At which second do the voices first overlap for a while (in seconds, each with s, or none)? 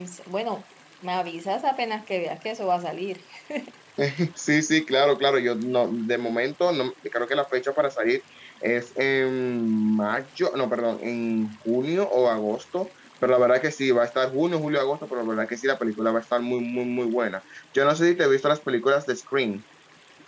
none